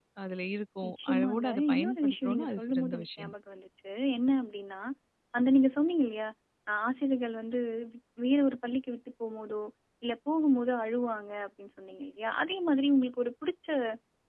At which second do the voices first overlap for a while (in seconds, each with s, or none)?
0.9 s